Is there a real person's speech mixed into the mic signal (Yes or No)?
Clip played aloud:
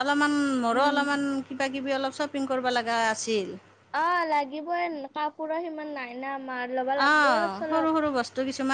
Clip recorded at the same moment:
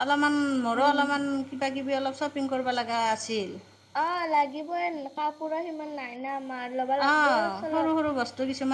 No